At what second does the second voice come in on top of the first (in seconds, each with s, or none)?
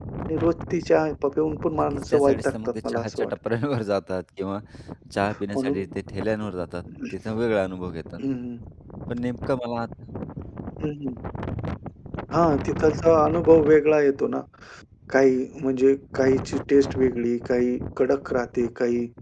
1.8 s